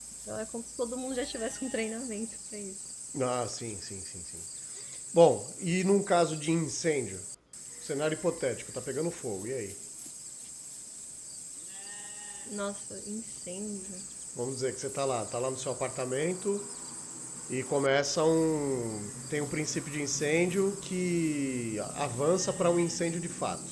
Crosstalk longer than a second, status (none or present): none